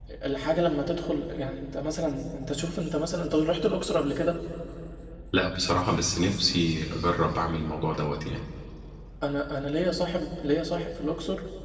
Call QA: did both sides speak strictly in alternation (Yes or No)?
Yes